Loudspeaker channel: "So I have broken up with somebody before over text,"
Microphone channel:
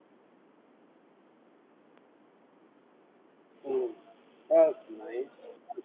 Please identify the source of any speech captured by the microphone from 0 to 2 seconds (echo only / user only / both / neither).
neither